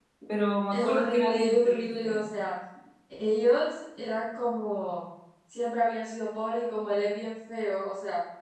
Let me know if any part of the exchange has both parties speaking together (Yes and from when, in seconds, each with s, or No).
Yes, from 0.7 s